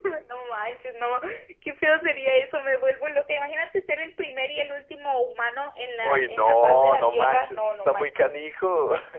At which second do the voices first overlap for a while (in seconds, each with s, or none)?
6.0 s